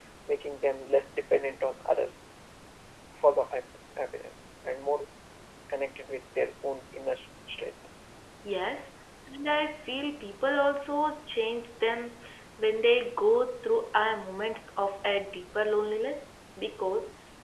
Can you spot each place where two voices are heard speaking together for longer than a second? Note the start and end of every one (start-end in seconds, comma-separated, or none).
none